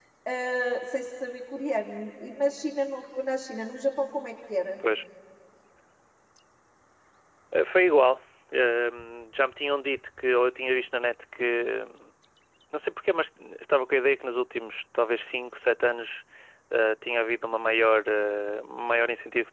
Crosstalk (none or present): none